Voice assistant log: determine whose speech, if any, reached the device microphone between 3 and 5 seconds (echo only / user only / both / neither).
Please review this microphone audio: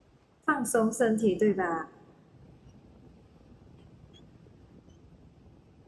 neither